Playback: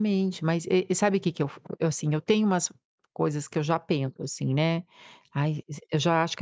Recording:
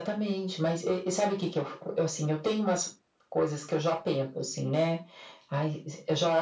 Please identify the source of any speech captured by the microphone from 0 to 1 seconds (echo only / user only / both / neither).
echo only